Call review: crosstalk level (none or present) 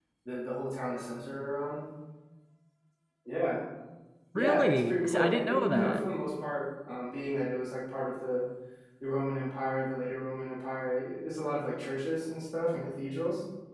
present